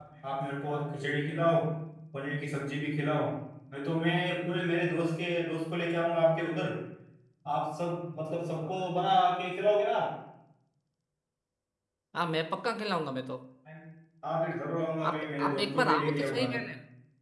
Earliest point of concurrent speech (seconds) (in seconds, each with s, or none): 15.1 s